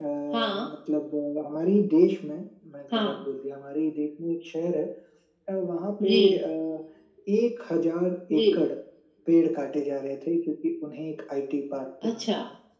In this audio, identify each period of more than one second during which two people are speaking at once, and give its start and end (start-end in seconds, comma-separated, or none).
none